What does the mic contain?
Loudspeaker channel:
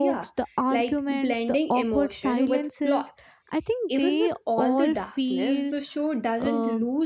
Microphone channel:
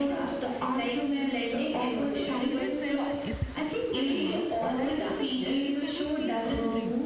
both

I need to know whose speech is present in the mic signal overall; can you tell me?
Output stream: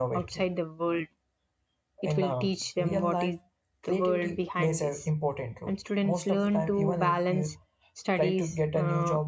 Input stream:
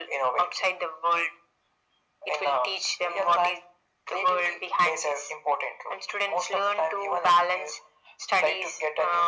echo only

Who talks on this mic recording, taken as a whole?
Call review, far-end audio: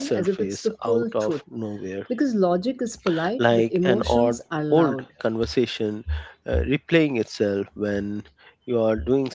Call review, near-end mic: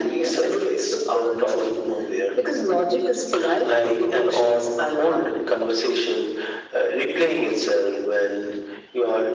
echo only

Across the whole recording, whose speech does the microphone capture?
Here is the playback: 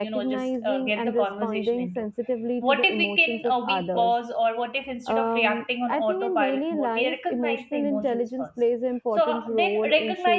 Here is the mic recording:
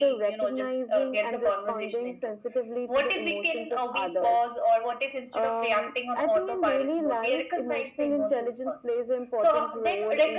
echo only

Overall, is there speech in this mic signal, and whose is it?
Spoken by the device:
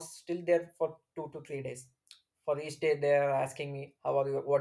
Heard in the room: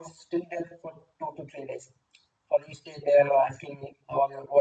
echo only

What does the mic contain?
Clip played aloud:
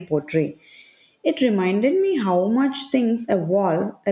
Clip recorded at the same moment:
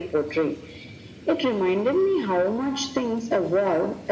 echo only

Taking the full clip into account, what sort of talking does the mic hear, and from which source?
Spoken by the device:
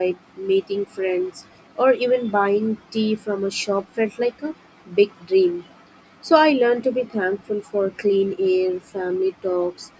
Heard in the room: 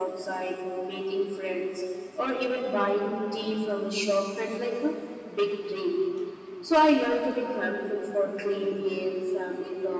echo only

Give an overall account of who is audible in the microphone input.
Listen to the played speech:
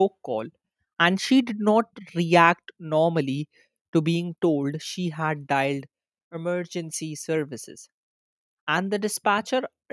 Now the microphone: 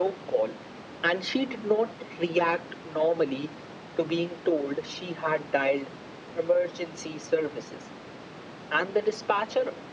echo only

